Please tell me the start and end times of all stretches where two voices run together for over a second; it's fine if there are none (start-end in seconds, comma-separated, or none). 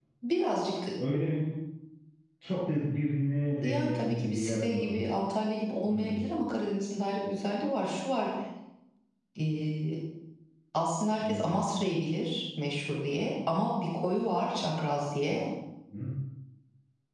3.6-4.9